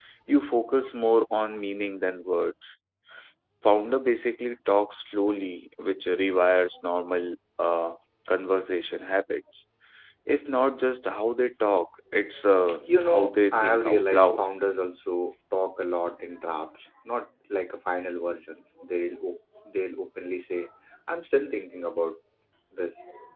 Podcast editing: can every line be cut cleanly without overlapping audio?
No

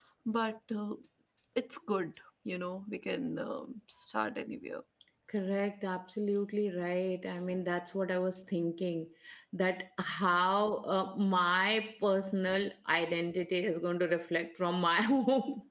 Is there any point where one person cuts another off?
No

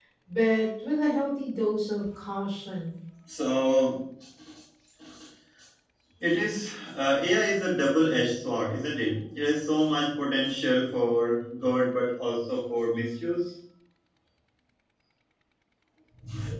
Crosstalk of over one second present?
No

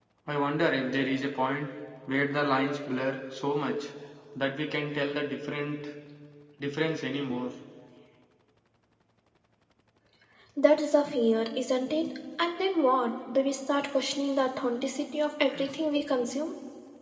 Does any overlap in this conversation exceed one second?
No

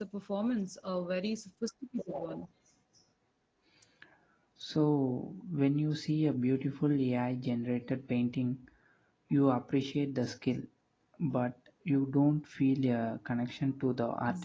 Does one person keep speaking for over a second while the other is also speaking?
No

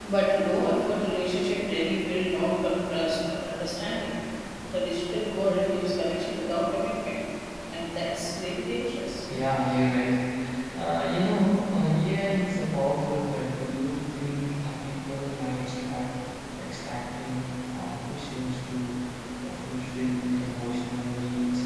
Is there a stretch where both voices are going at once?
No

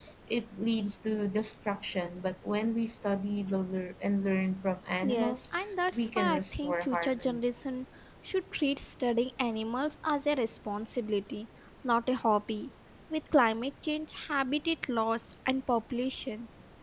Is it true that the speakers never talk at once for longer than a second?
No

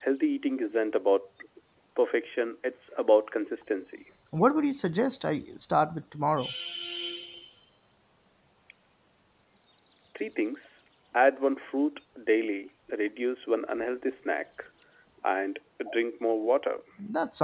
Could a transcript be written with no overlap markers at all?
Yes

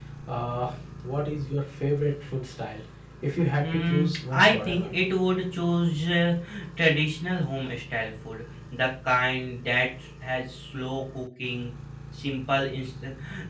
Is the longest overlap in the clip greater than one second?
Yes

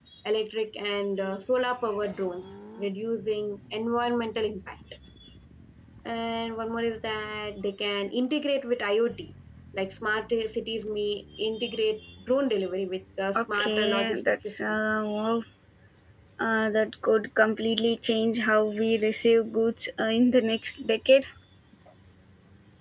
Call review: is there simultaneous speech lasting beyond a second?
Yes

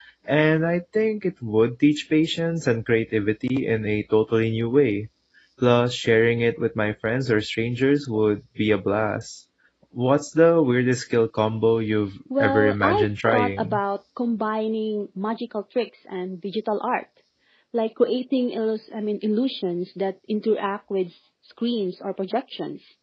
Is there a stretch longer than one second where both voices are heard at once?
Yes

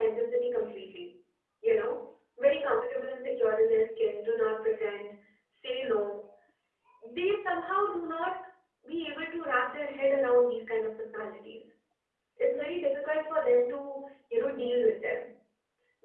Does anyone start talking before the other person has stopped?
No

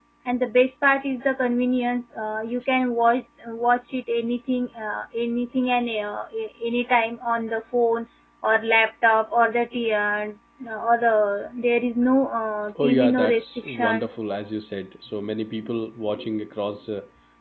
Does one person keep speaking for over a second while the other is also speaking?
Yes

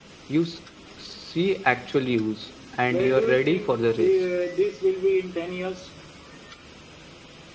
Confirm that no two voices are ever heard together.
No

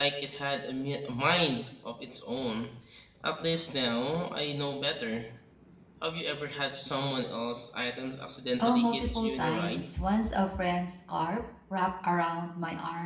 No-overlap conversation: No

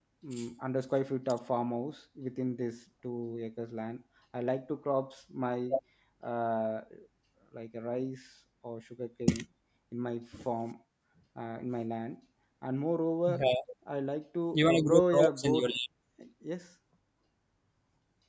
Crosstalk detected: Yes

